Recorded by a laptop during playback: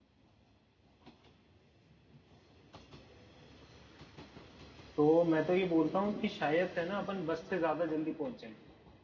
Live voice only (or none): तो मैं तो ये बोलता हूँ कि शायद है ना अपन बस से ज्यादा जल्दी पहुंच जाएंगे